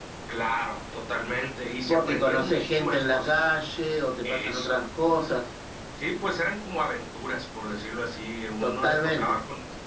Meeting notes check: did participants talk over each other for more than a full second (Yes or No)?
Yes